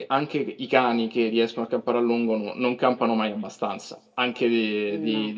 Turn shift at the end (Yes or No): No